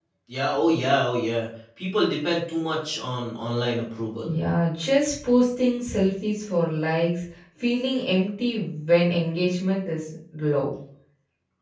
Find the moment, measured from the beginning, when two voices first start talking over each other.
none

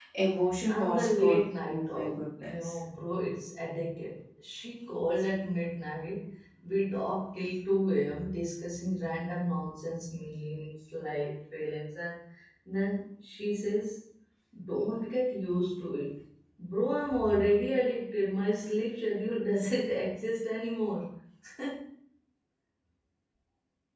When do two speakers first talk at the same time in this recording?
0.7 s

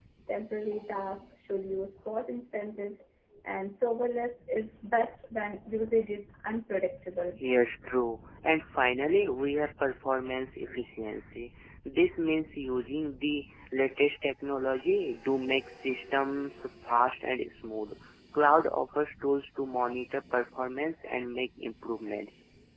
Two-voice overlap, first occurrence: none

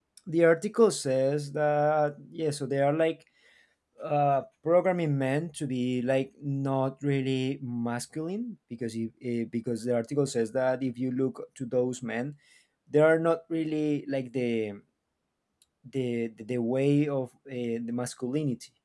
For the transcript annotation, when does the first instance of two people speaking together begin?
none

